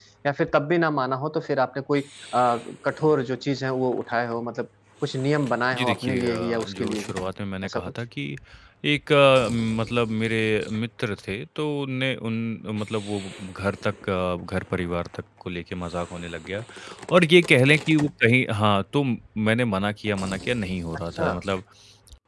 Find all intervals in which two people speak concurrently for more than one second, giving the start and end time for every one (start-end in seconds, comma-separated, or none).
5.7-7.1